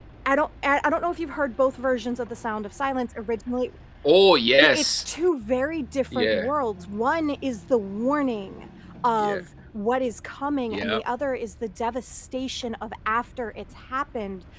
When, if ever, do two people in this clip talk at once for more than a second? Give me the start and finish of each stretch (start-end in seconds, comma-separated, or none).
none